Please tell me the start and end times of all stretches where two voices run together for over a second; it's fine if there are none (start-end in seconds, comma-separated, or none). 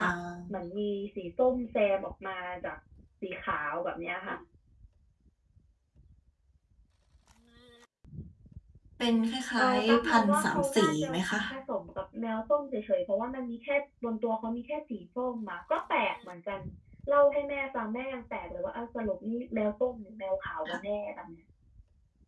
9.6-11.1